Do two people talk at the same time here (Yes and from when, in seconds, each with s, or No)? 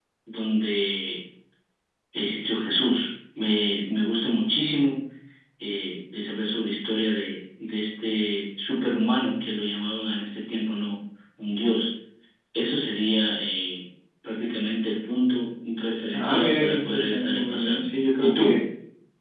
Yes, from 16.1 s